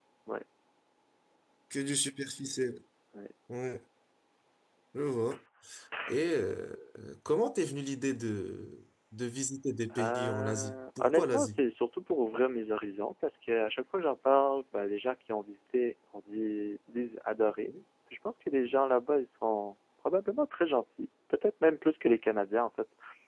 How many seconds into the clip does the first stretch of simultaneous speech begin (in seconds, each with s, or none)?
9.9 s